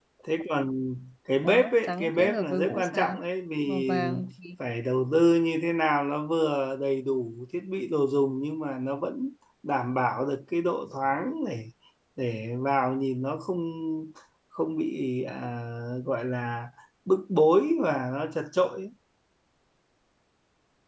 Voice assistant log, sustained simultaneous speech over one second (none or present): present